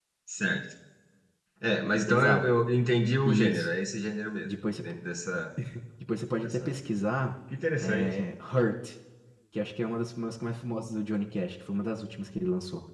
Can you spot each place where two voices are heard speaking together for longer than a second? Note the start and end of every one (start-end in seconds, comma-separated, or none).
none